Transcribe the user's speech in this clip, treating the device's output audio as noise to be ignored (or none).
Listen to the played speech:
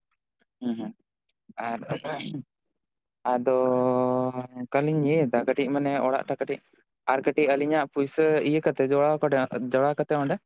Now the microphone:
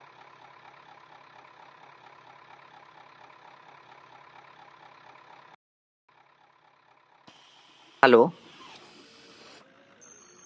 ᱦᱟᱞᱳ,